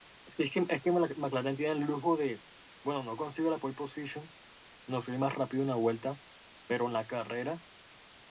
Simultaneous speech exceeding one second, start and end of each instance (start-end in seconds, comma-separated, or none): none